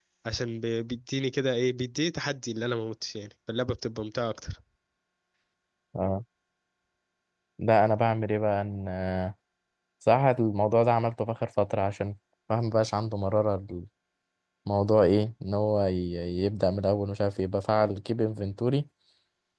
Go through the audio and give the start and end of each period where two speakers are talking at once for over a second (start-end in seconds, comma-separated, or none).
none